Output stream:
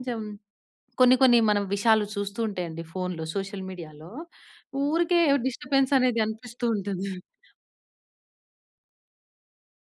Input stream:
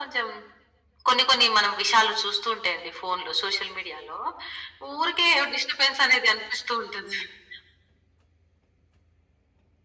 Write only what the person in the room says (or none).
none